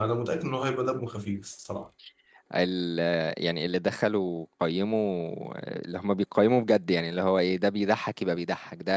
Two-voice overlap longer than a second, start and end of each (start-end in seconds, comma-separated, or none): none